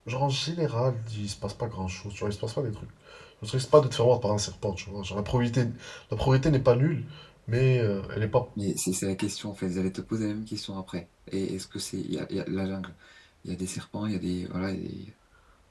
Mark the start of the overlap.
none

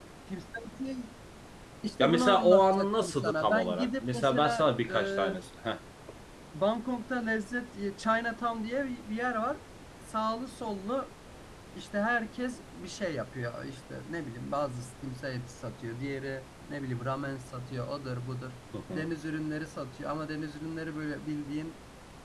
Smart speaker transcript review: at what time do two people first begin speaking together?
2 s

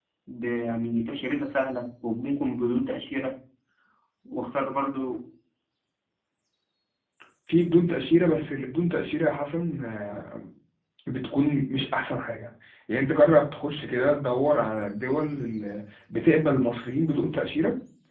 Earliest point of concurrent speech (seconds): none

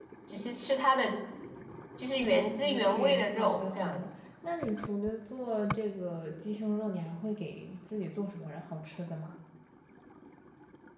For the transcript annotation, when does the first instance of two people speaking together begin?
3 s

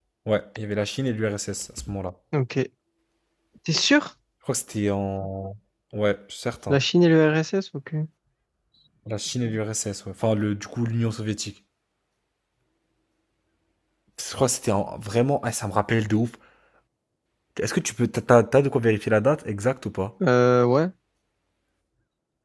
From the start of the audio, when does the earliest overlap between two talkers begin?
none

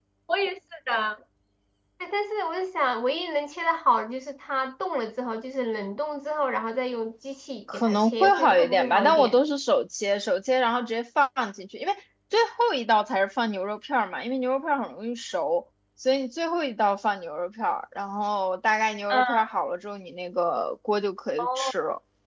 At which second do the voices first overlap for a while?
8 s

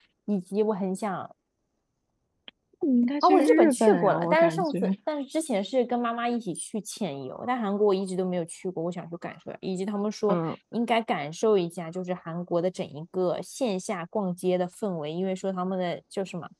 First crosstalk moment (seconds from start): 3 s

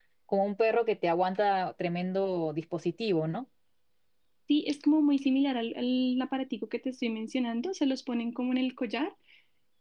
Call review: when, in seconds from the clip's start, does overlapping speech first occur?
none

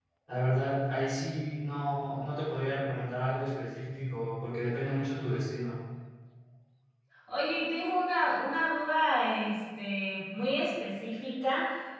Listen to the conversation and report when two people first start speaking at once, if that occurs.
none

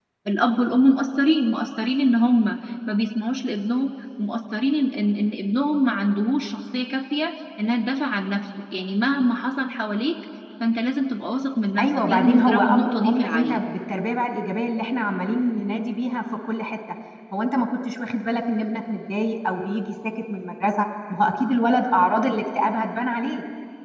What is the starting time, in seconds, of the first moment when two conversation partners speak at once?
12 s

